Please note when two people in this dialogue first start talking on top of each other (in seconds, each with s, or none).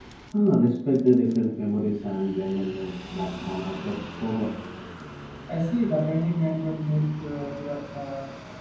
none